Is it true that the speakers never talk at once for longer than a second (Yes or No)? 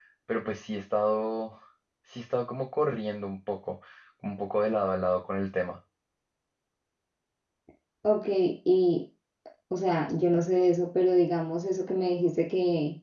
Yes